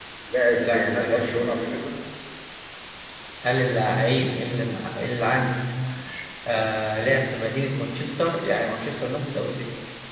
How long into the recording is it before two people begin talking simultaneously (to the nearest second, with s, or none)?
1 s